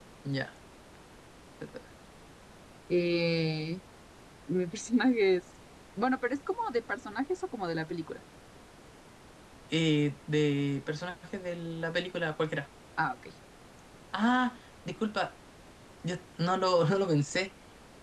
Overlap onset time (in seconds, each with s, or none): none